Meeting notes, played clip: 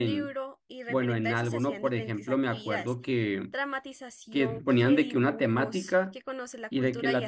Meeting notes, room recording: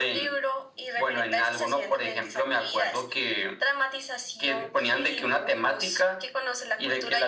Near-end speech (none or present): none